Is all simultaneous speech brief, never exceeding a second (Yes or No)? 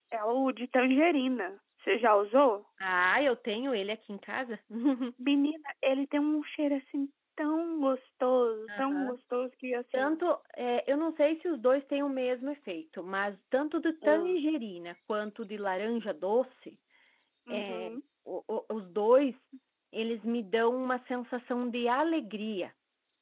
Yes